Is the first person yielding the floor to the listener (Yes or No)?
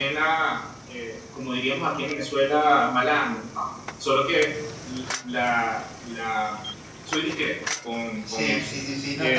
Yes